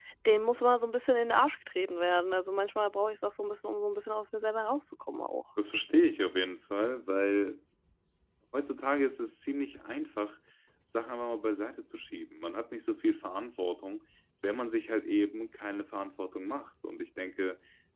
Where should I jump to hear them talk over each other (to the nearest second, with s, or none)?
none